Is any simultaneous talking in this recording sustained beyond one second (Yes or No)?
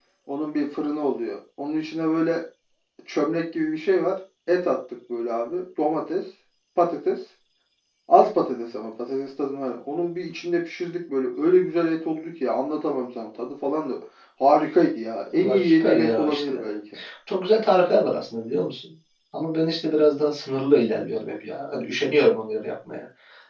Yes